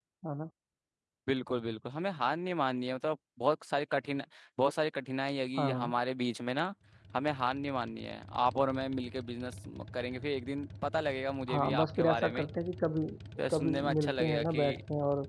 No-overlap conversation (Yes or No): No